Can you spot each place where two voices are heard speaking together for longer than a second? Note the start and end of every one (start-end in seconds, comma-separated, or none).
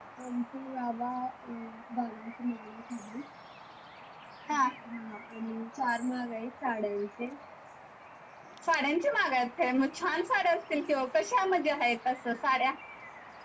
none